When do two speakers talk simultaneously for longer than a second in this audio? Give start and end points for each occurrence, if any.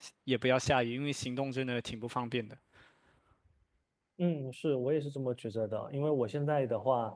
none

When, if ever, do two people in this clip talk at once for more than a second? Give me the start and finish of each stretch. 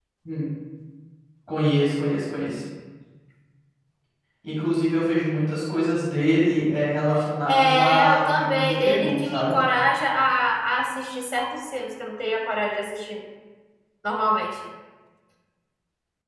7.5-9.5

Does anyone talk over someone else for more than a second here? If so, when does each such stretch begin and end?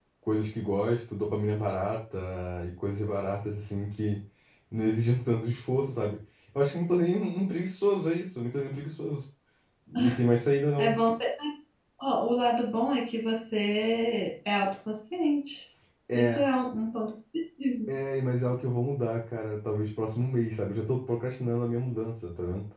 none

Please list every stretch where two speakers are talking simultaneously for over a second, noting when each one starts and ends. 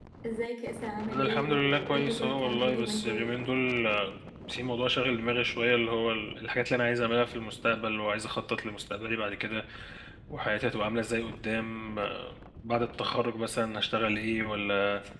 1.1-3.3

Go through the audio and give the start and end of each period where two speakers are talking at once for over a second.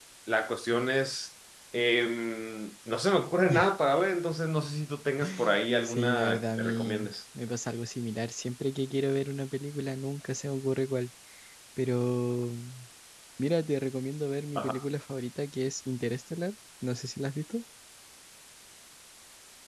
5.8-7.1

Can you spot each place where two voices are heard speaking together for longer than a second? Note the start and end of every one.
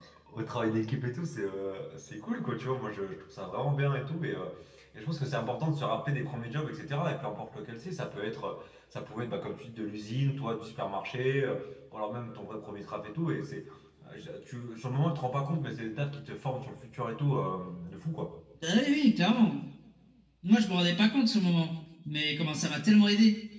none

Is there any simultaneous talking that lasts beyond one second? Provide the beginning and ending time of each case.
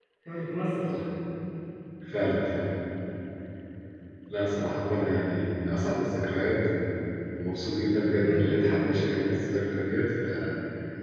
8.2-9.4

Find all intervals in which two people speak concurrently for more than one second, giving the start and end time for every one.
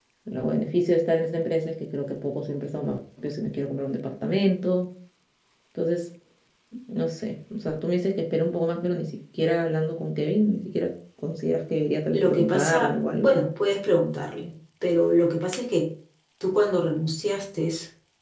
12.1-13.3

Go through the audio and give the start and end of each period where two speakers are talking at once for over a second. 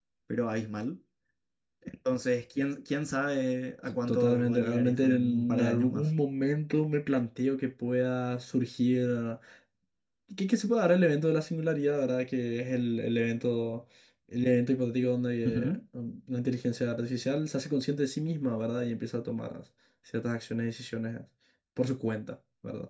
3.9-6.1

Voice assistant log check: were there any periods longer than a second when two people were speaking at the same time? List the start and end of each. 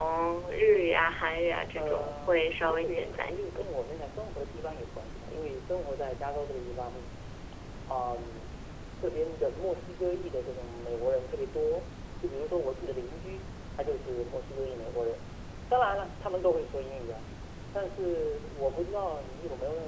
1.8-3.5

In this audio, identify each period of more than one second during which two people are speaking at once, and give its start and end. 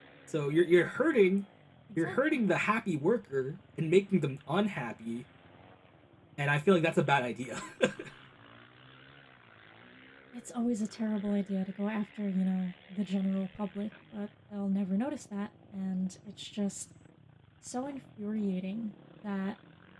none

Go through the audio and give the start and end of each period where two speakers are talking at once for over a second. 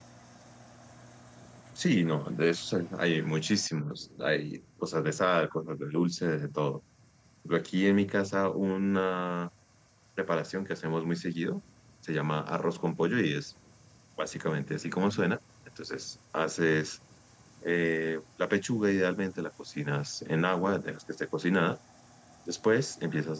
none

